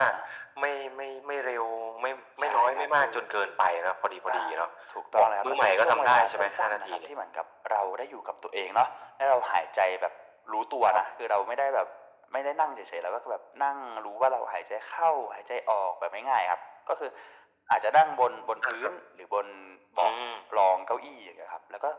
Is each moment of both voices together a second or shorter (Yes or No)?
No